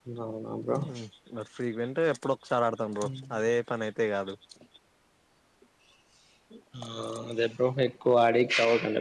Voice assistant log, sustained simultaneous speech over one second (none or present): none